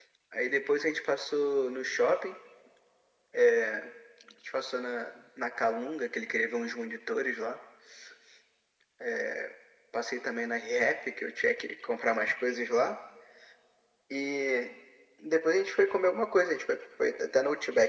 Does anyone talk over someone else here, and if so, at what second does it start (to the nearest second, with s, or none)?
none